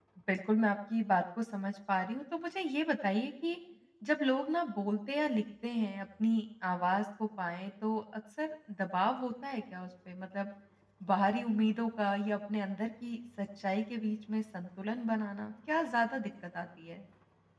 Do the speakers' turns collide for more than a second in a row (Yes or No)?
No